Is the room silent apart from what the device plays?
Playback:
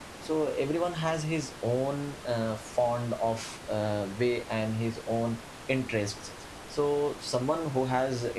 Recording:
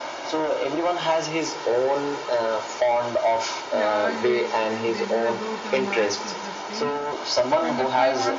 No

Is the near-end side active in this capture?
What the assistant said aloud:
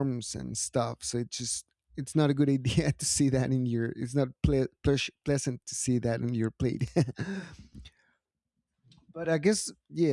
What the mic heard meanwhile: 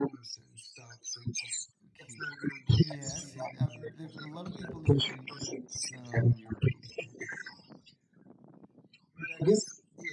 Yes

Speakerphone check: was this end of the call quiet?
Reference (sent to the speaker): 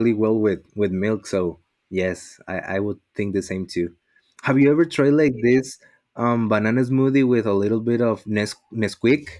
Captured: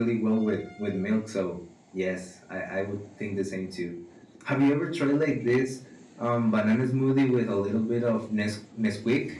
Yes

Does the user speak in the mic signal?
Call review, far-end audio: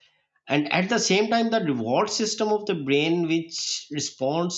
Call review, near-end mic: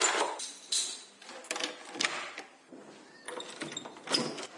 No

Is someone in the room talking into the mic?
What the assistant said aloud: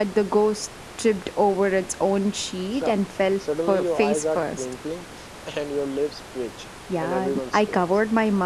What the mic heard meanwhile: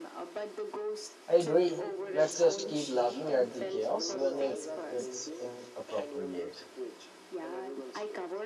Yes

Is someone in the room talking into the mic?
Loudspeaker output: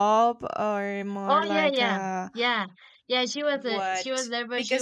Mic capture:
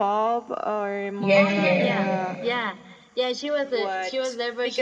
Yes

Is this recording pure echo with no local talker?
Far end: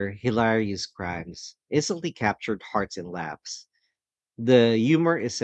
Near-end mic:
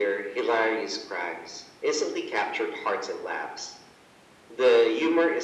Yes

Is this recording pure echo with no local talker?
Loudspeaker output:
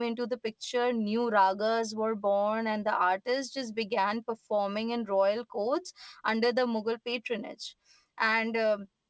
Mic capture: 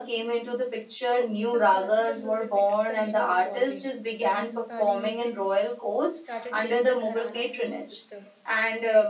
No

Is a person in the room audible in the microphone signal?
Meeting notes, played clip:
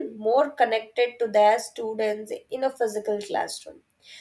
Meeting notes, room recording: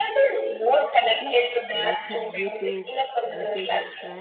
Yes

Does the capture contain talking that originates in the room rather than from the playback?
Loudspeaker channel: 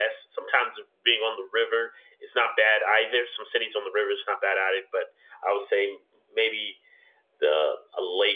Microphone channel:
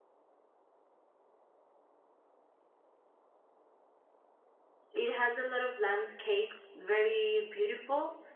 Yes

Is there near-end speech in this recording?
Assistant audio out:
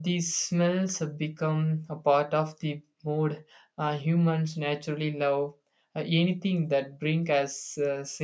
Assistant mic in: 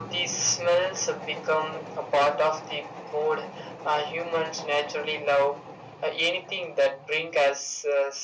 No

